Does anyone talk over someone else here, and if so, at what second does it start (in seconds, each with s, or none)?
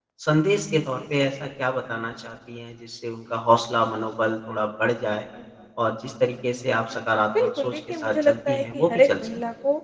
7.3 s